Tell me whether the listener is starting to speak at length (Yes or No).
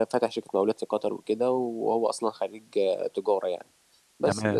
No